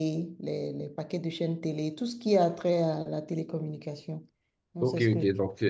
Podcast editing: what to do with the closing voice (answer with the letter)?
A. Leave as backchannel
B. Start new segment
B